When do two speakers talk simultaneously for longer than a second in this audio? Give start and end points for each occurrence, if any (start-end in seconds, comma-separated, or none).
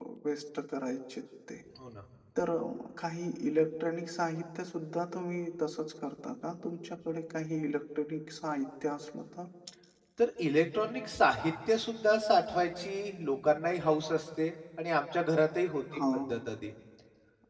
none